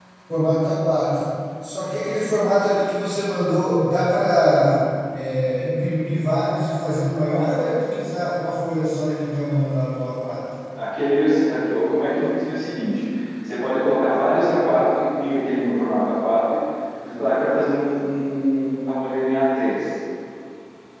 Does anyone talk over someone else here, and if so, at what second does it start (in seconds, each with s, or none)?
none